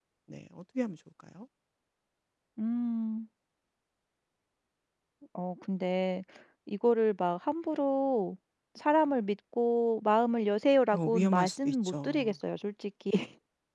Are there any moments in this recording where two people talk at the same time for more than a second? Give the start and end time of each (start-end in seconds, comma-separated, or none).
10.9-12.3